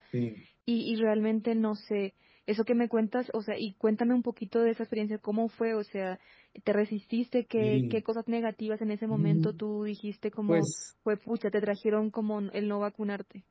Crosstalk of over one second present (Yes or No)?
No